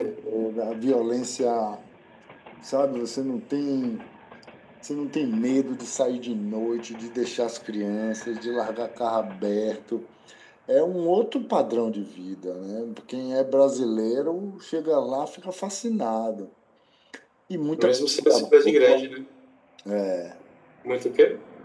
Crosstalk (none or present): present